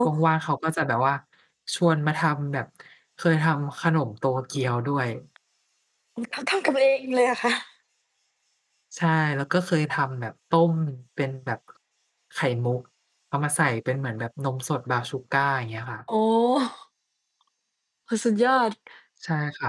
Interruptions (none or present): none